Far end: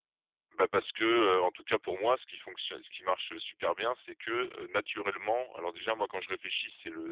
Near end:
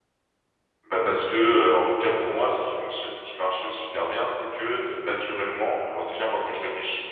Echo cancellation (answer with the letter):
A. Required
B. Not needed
A